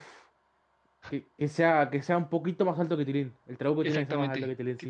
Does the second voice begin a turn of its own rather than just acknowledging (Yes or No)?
Yes